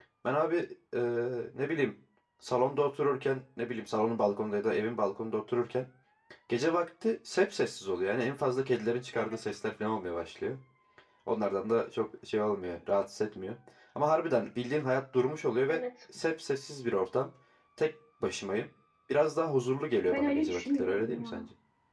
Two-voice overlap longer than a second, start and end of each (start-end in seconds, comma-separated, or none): 20.1-21.4